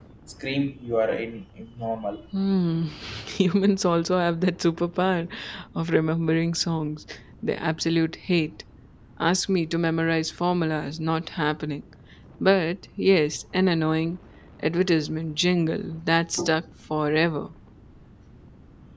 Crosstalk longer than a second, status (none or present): none